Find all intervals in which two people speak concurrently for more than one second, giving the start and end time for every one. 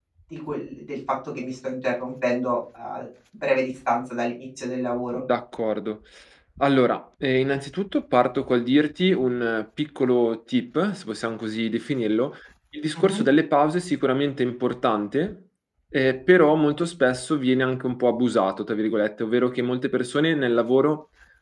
none

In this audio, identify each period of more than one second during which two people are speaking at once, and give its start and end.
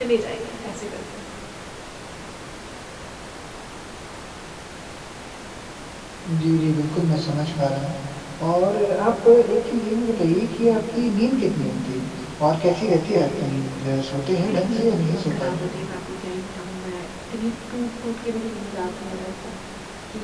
14.4-15.7

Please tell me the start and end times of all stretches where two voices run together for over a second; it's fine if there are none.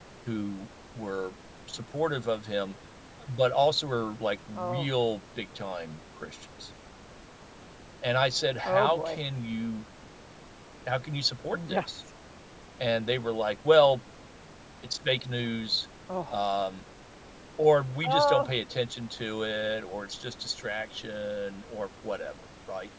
none

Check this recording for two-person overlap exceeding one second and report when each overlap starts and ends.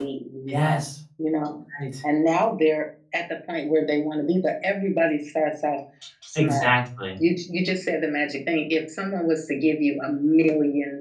none

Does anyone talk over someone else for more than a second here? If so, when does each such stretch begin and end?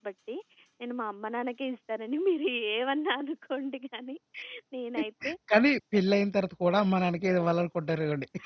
none

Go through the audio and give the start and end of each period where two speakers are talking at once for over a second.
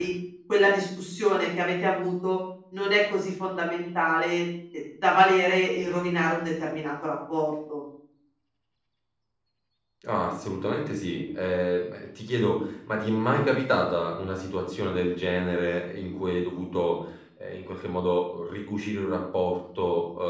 none

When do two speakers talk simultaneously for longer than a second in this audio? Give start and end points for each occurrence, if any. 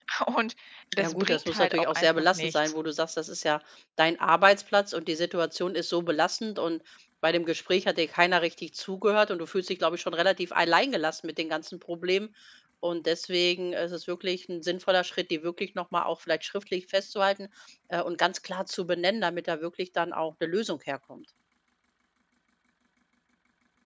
1.0-2.6

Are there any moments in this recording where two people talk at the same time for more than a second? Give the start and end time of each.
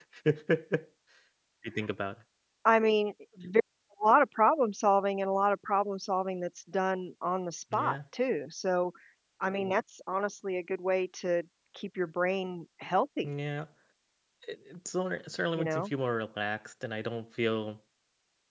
none

